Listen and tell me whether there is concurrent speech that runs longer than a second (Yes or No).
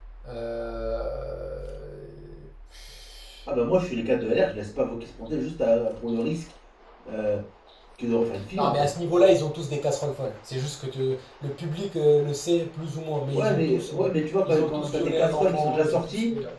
Yes